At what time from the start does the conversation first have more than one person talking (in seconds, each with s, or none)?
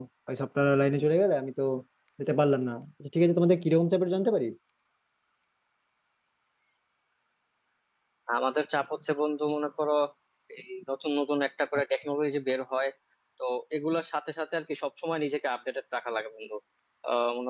none